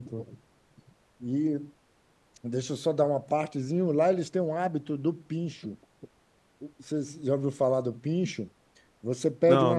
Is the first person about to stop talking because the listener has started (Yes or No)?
No